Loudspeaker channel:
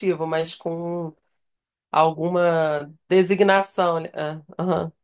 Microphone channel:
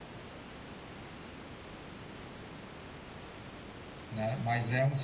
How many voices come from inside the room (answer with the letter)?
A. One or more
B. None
A